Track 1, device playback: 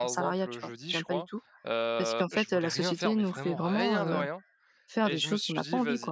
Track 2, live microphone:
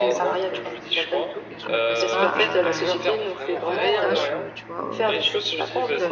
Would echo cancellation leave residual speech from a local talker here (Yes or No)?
Yes